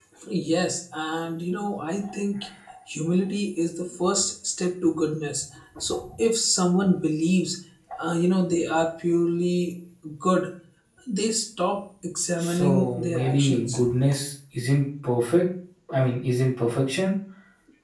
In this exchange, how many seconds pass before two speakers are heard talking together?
12.4 s

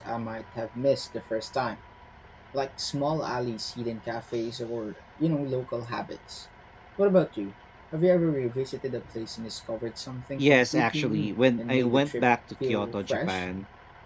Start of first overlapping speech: 10.4 s

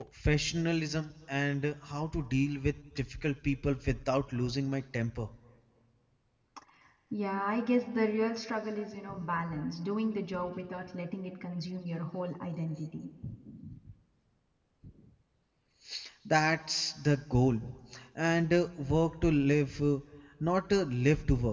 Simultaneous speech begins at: none

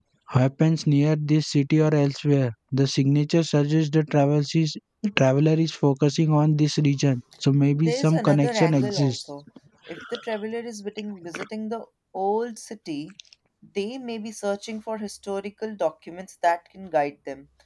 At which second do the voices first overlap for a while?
7.7 s

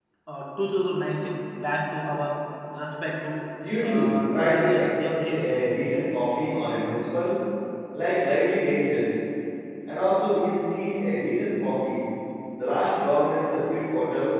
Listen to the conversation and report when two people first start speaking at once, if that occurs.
3.6 s

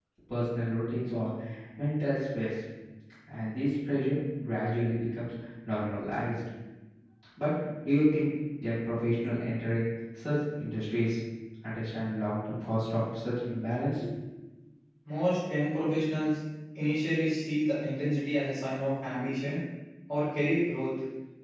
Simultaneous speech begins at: none

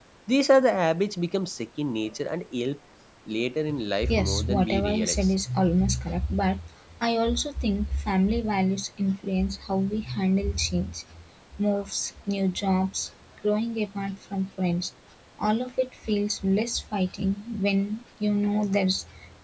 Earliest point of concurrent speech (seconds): 4.1 s

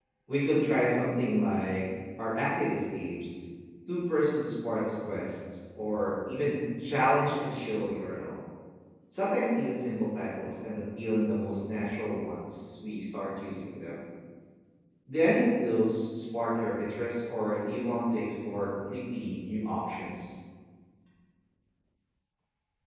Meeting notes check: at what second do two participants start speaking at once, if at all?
none

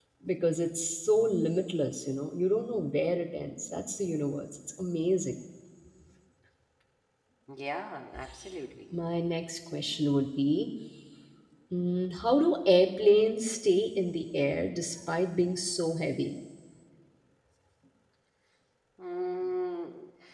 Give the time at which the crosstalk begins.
none

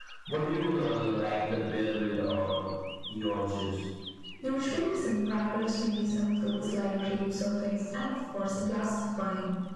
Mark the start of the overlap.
none

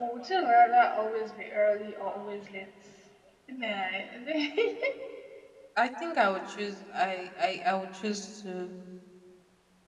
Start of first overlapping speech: none

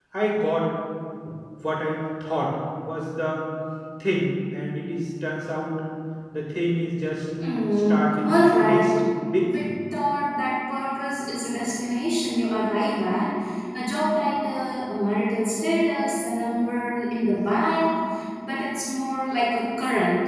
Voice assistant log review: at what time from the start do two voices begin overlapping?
7.4 s

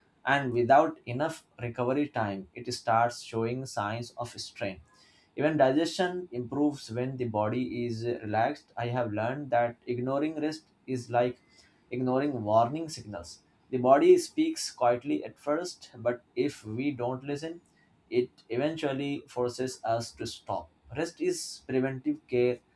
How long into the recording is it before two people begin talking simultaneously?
none

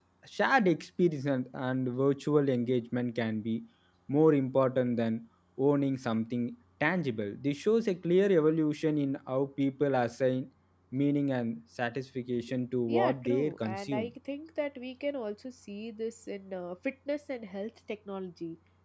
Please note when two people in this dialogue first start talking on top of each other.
12.9 s

